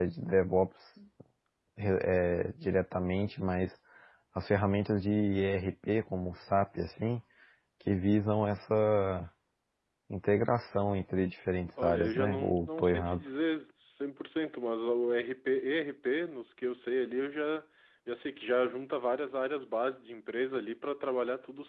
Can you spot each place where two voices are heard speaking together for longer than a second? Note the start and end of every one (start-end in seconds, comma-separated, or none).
11.8-13.2